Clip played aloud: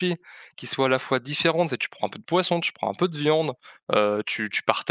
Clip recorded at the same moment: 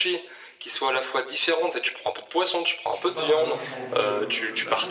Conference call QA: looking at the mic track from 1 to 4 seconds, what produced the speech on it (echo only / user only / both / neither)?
both